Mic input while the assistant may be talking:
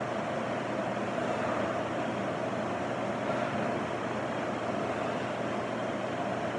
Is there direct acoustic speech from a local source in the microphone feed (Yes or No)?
No